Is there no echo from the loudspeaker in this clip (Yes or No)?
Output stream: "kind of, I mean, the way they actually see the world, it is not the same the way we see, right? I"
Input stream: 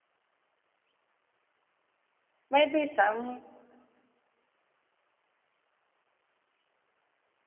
Yes